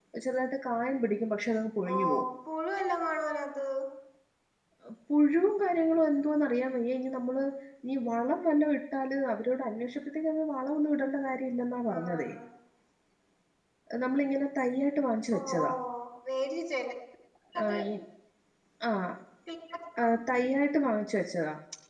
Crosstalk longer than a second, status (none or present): none